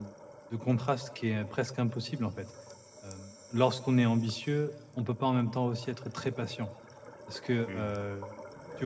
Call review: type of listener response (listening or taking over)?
listening